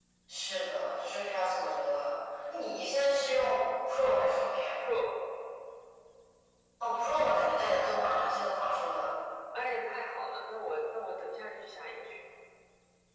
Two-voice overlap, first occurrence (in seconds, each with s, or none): none